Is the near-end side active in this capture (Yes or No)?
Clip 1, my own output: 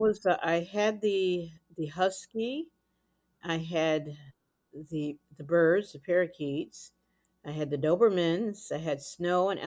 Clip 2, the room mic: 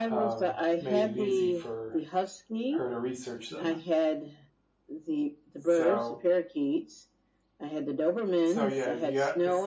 Yes